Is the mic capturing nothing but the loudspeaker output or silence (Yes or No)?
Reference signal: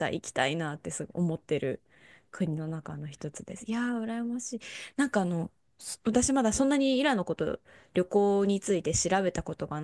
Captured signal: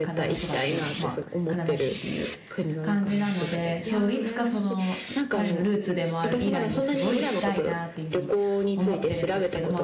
No